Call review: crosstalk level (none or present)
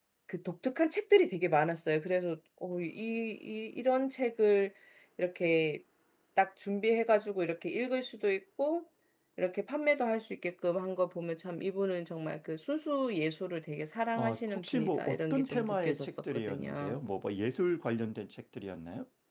present